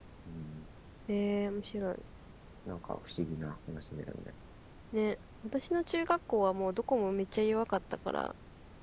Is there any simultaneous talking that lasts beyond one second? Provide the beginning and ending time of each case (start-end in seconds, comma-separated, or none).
none